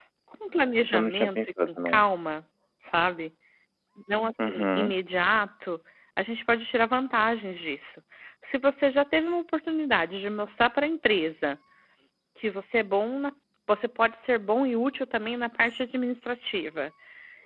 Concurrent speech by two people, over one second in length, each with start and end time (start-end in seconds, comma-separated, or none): 0.8-2.0